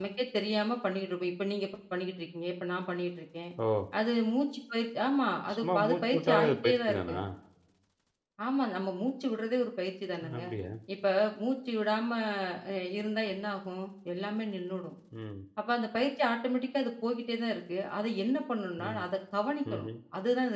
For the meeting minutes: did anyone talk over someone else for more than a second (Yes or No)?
Yes